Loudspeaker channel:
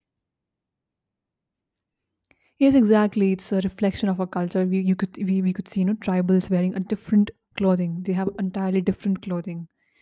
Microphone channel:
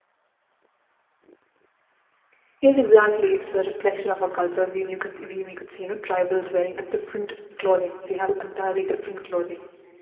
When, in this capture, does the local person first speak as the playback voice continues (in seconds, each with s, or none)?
none